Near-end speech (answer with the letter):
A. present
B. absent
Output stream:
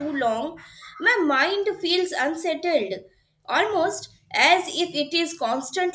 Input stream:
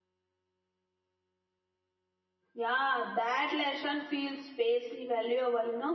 A